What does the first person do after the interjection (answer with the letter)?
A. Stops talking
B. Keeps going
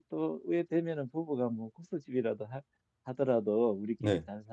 B